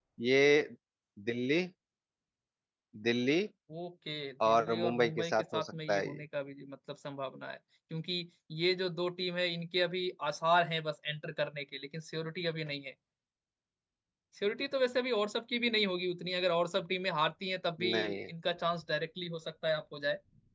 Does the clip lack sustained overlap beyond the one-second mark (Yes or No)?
No